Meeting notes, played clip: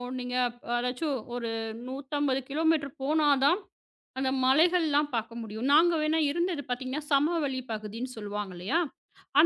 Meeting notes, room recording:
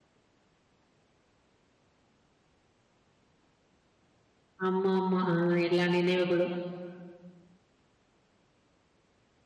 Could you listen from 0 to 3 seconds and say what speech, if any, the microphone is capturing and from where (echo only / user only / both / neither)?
neither